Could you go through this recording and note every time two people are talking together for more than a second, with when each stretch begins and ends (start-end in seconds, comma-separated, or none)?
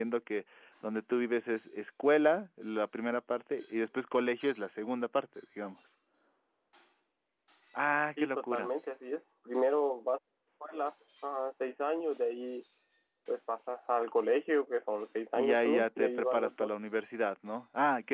15.4-16.7